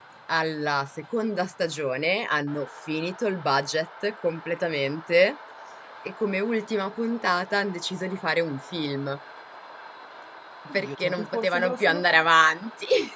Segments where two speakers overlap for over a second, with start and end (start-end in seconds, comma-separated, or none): 10.7-12.3